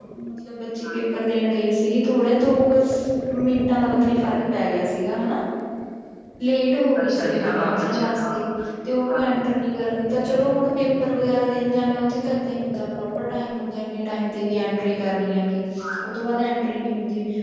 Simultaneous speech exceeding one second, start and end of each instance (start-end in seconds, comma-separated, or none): 7.0-8.4